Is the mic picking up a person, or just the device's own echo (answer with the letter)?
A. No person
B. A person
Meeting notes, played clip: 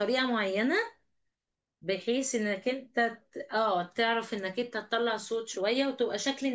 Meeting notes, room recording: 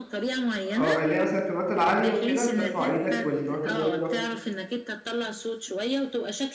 B